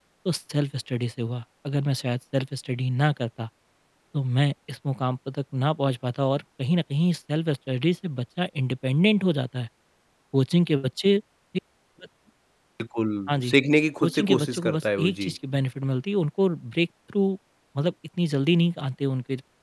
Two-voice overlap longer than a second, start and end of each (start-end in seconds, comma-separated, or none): 14.0-15.3